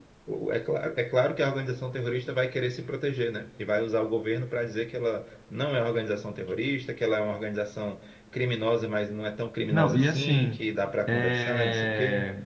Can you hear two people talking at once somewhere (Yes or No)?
Yes